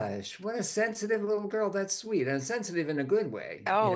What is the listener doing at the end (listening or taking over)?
taking over